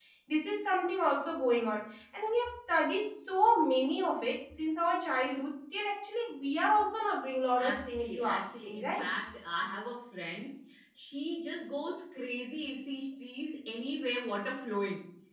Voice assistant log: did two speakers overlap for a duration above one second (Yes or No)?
Yes